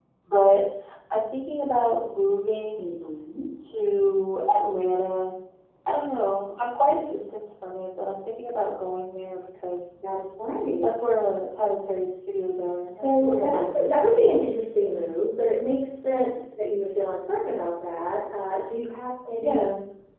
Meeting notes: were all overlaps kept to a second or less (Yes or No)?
No